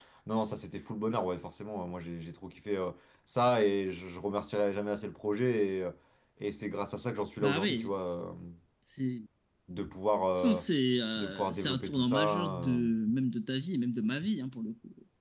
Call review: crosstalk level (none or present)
present